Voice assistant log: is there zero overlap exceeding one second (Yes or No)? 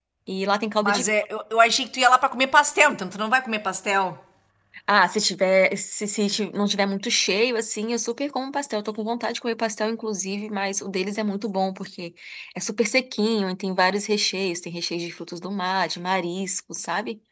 Yes